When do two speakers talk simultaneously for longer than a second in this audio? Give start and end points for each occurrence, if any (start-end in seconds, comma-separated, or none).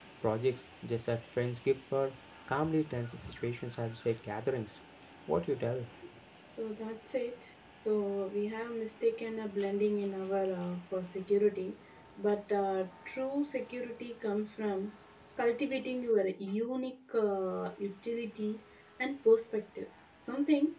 none